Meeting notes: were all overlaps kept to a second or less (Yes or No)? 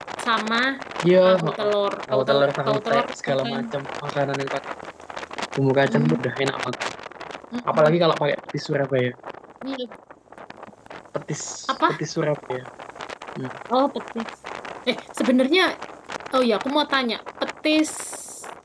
No